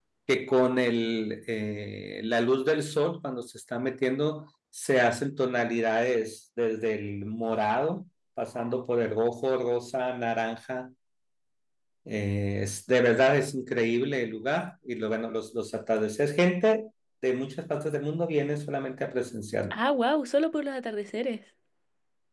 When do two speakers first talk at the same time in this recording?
none

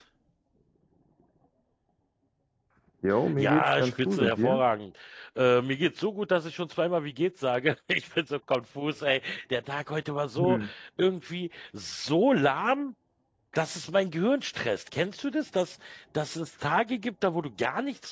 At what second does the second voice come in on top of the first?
3.4 s

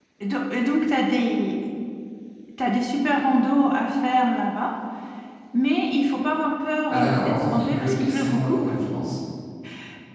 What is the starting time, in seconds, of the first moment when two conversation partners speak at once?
6.9 s

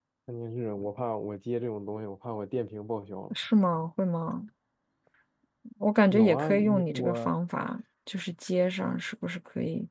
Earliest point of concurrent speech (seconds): 6.1 s

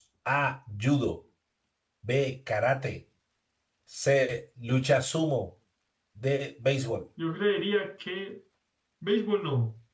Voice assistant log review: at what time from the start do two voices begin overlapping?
none

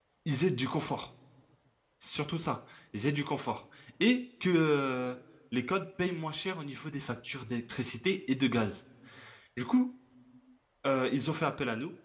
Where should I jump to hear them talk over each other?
none

